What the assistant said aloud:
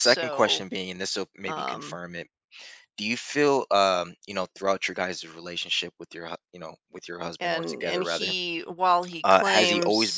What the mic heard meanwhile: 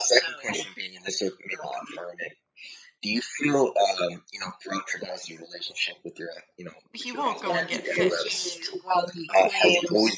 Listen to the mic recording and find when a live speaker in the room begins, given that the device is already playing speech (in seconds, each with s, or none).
6.9 s